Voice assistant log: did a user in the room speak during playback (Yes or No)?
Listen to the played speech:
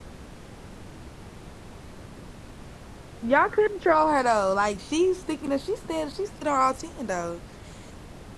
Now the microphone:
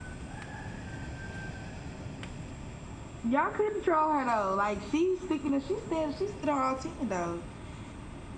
No